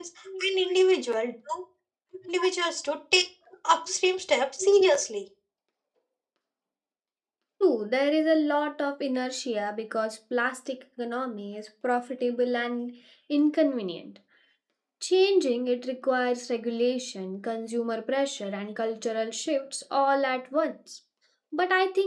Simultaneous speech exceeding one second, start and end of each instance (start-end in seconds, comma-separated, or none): none